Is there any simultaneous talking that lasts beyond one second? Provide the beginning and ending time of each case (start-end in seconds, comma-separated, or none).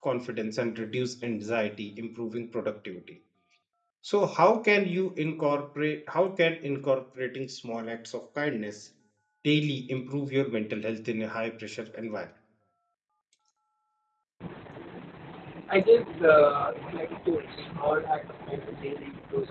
none